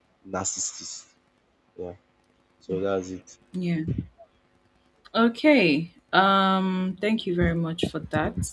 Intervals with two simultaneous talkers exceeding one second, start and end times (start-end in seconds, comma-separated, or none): none